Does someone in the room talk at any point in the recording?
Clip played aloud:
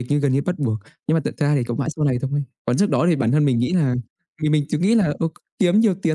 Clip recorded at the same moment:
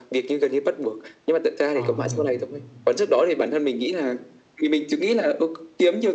Yes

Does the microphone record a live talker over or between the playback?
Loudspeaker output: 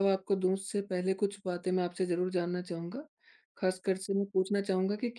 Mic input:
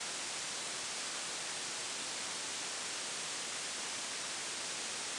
No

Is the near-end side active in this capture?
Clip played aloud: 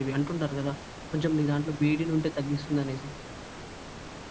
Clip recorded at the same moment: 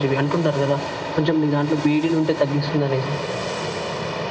No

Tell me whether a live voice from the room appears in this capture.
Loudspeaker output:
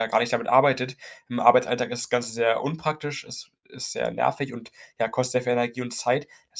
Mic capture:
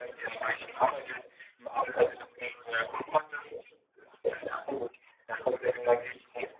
No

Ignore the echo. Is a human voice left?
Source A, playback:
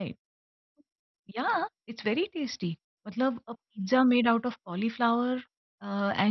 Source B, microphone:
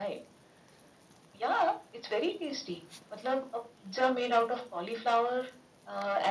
No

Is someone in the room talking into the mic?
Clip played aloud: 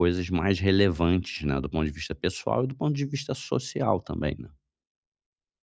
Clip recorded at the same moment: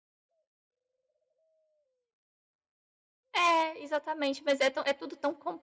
Yes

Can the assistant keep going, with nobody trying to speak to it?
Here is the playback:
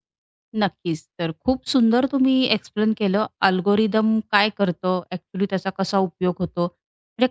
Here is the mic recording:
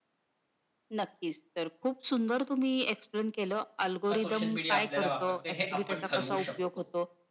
No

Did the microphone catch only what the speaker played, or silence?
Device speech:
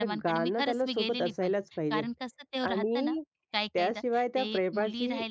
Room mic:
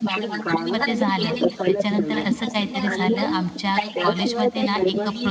No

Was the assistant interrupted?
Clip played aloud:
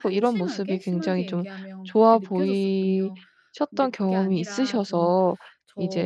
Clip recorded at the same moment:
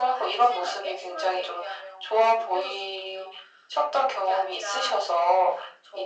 No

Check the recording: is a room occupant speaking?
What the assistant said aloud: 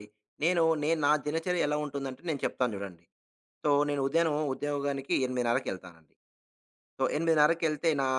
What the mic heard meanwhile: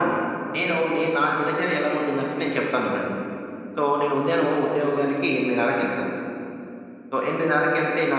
No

